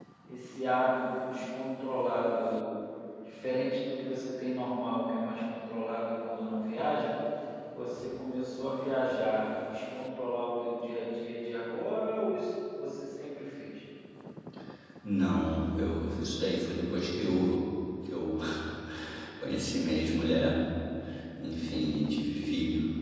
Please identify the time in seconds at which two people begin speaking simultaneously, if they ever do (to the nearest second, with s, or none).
none